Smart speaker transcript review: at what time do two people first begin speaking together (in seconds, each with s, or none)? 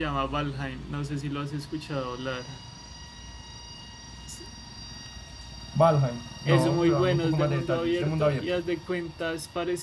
6.4 s